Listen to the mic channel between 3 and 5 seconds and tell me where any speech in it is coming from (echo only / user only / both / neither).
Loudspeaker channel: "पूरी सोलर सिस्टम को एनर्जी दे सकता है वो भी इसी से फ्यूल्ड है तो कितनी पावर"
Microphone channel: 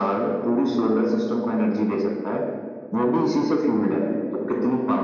echo only